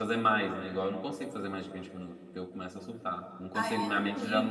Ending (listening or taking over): taking over